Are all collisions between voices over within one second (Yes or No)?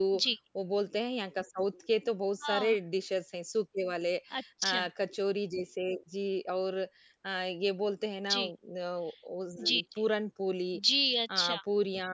Yes